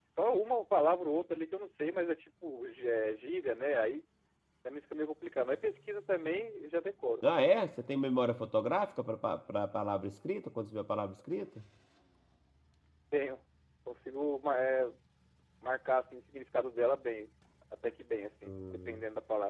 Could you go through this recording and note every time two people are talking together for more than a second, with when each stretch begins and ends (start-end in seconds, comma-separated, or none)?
none